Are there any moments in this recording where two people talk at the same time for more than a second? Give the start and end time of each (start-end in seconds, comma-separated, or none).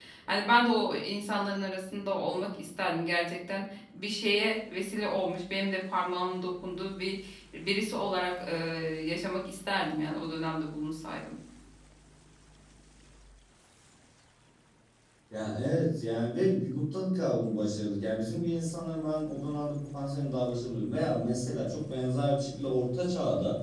none